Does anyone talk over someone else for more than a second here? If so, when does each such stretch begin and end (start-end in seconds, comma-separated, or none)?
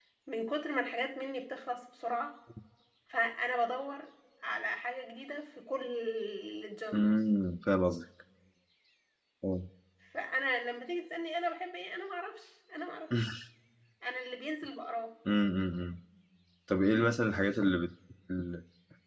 none